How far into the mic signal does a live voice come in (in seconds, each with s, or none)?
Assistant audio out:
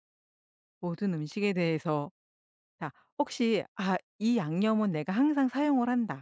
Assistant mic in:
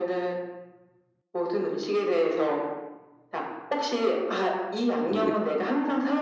5.1 s